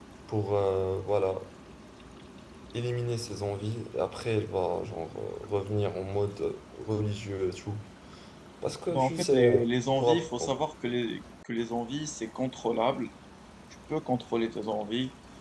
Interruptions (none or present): present